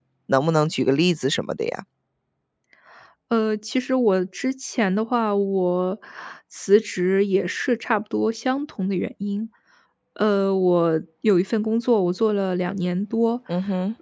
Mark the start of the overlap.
none

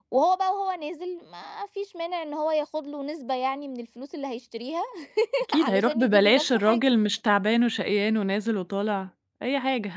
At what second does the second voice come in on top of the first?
6 s

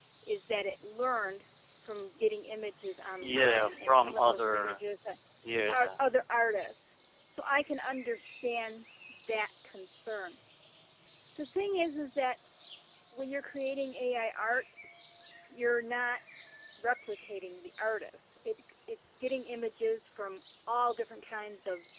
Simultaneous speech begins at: 3 s

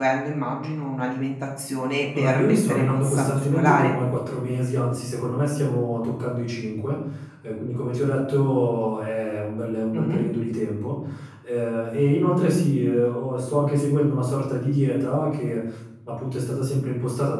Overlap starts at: 2 s

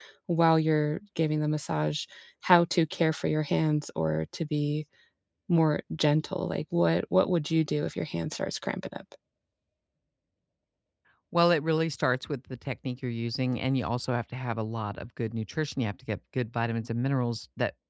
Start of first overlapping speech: none

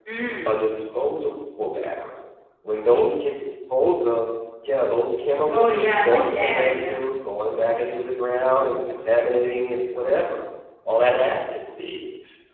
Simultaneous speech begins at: 5 s

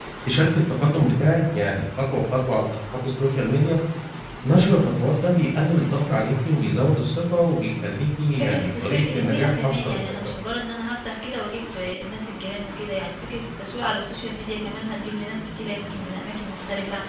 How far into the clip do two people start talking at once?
8 s

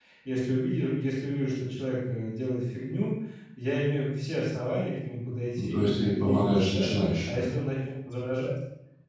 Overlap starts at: 6 s

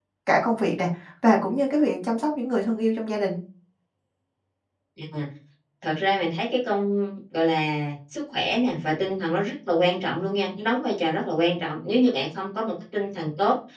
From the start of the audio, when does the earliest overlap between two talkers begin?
none

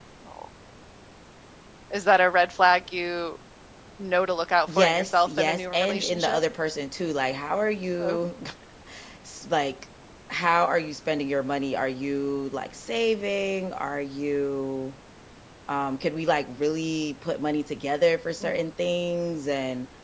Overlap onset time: 5 s

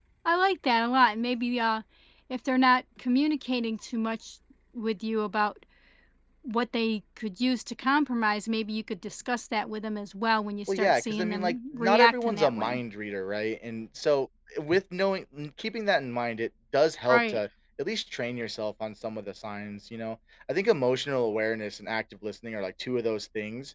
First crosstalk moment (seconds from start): 11 s

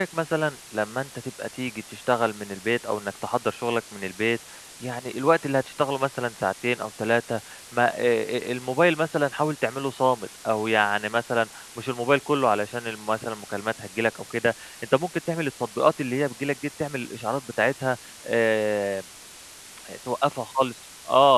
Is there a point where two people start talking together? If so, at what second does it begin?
none

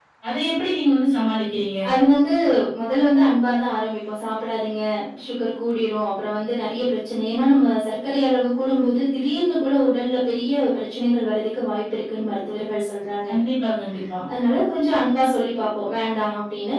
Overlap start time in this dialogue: none

